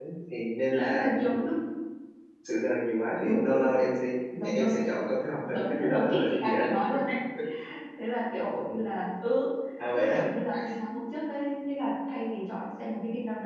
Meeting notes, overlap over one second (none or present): present